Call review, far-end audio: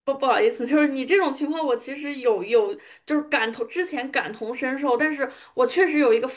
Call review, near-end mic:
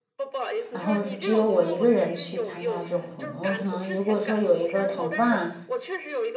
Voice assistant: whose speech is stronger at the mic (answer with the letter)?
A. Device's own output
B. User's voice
B